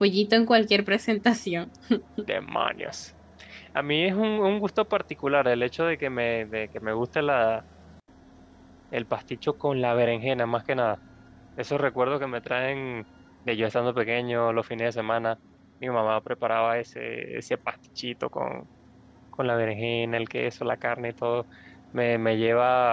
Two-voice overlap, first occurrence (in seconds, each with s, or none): none